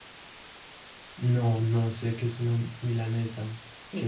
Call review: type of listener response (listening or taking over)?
taking over